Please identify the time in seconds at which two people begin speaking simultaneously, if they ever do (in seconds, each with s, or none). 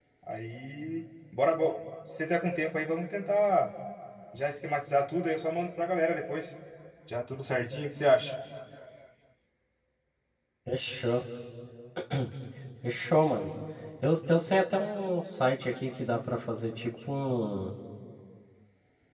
none